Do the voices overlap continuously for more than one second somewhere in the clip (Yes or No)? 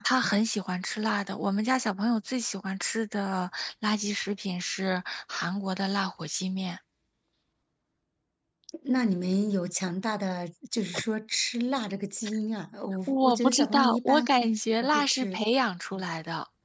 Yes